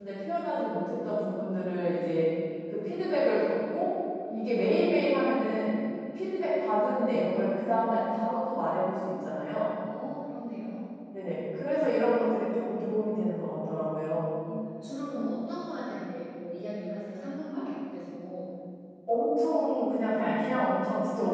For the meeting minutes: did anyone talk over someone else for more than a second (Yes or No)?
No